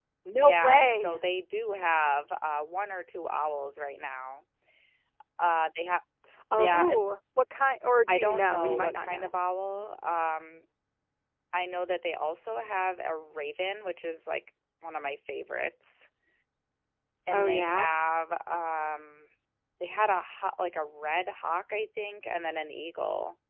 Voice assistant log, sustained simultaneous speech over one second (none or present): present